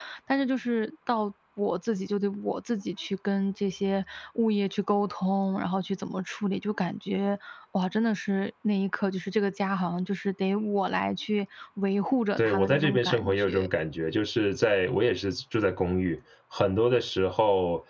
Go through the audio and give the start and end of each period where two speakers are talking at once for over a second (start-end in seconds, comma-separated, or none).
12.4-13.7